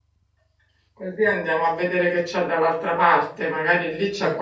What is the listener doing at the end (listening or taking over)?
listening